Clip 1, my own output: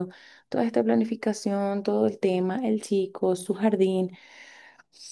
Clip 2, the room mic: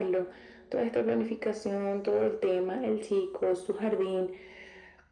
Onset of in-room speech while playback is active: none

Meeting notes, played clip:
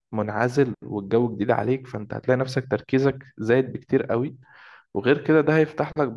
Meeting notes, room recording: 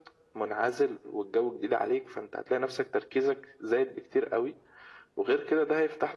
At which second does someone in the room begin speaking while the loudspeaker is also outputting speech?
none

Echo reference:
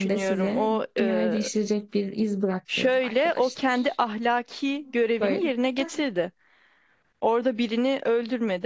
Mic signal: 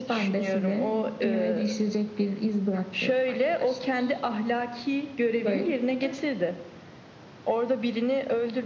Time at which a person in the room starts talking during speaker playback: none

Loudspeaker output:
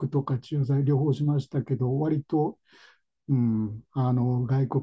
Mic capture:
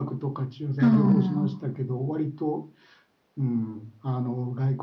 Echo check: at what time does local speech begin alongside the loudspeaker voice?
0.8 s

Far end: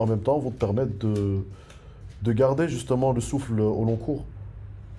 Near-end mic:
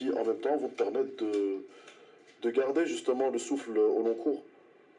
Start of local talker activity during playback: none

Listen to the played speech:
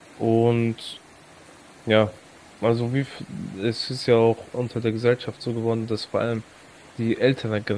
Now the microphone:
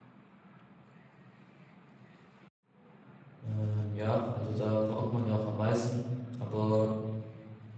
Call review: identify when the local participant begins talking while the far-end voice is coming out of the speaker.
3.4 s

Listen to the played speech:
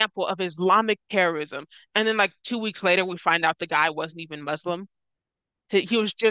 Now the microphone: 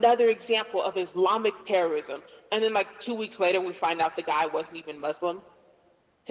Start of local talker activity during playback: none

